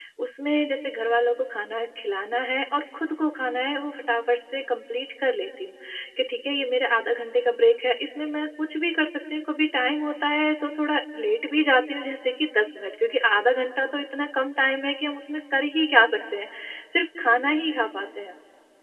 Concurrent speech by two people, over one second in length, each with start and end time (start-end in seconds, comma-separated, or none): none